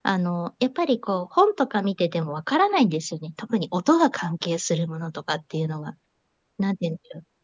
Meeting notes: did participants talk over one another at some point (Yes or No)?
No